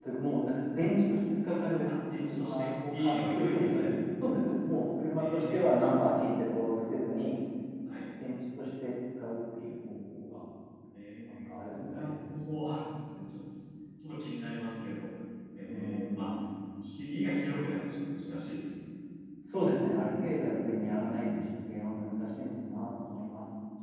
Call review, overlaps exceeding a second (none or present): present